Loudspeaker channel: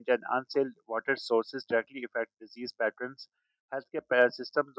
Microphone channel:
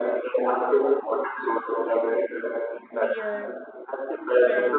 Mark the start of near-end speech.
2.9 s

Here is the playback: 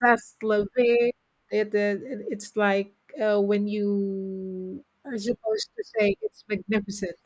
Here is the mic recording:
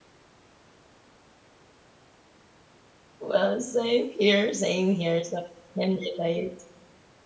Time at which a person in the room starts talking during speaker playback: 3.2 s

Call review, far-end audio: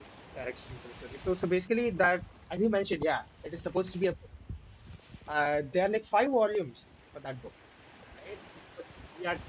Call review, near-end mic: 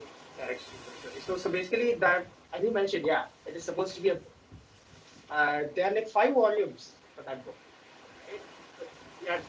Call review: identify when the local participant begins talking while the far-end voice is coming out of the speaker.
none

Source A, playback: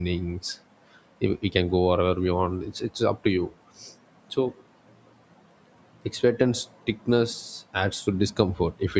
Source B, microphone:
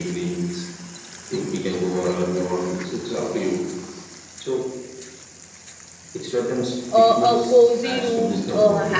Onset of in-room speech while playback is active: 6.9 s

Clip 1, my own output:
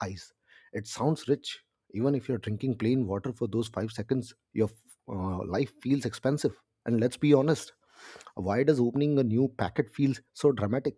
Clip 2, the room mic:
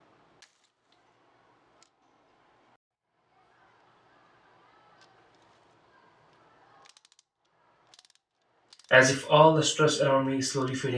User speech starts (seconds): 8.9 s

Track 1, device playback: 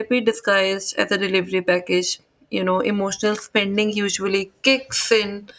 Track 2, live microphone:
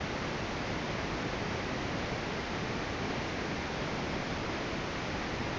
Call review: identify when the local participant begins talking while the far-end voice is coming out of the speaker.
none

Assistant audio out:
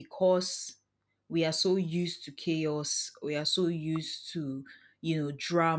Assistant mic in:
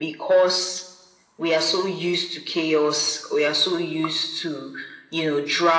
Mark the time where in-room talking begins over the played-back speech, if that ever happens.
none

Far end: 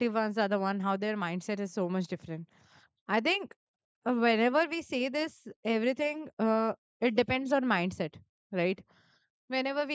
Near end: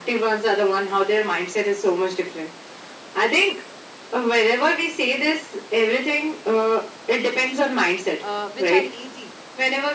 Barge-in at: 8.2 s

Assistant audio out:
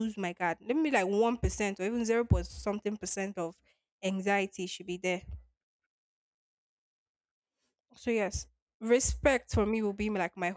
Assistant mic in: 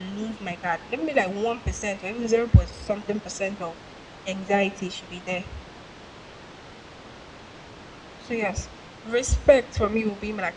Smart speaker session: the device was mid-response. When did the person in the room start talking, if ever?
none

